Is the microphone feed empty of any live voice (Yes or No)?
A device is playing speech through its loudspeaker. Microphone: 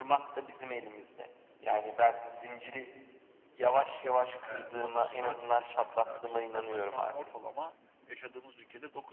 No